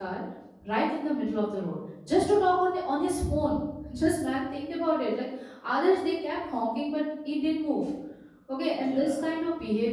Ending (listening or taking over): listening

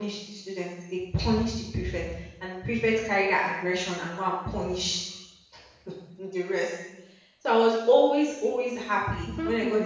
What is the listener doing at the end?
taking over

